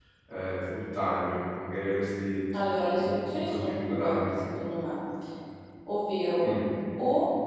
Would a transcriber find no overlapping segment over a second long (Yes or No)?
No